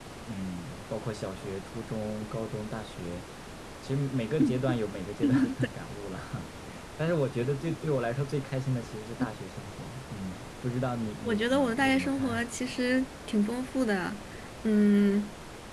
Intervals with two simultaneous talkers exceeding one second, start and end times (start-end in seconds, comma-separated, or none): 11.2-12.5